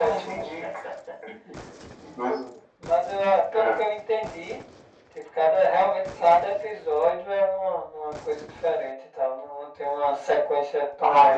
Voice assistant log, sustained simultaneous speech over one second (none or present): none